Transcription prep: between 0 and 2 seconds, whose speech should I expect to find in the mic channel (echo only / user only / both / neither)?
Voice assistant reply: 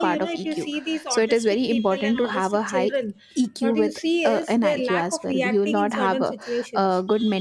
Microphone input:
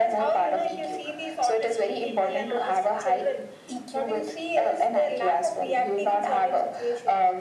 echo only